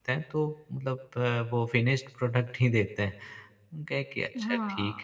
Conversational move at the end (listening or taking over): taking over